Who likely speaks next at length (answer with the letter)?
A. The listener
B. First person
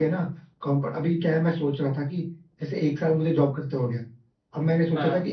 B